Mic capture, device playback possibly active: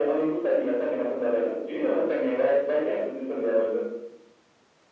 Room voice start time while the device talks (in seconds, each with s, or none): none